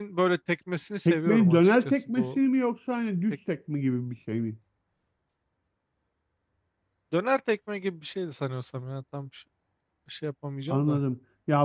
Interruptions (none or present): present